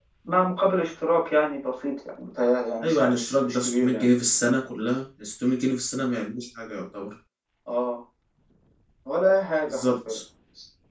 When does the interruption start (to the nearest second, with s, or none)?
3 s